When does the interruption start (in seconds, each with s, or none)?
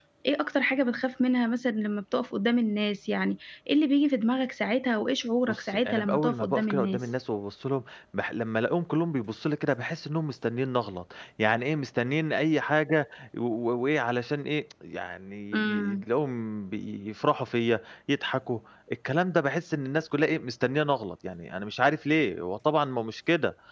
5.5 s